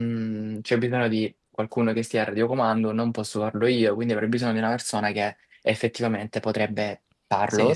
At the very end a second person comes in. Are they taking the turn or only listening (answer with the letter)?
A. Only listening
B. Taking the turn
A